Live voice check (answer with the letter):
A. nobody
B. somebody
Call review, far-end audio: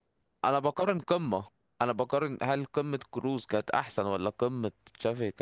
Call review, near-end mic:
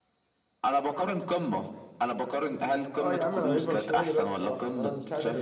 B